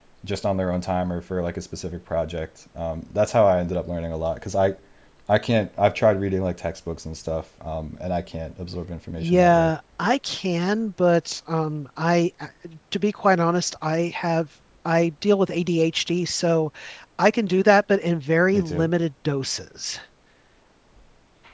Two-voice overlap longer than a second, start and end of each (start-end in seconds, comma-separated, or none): none